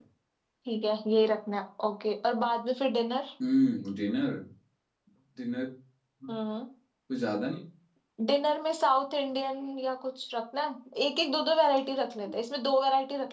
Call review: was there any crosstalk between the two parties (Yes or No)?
No